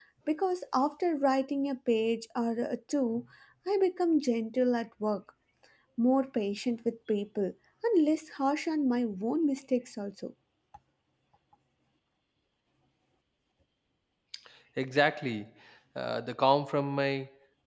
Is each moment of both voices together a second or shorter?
Yes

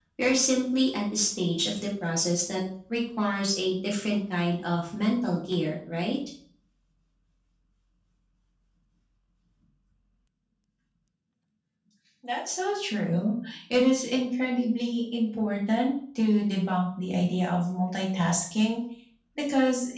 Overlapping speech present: No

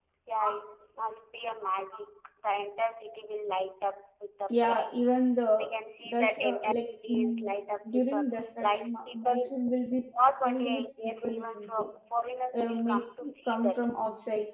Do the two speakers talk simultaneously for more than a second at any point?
Yes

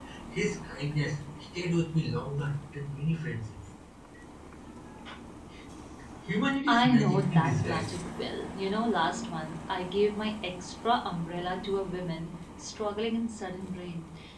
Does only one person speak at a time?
No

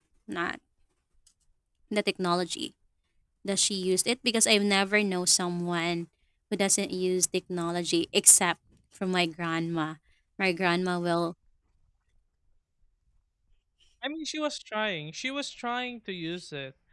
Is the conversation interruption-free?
Yes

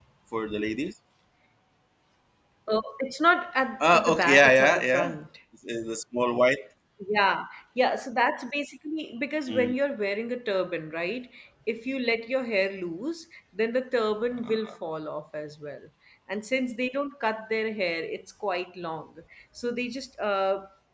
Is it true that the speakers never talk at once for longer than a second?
No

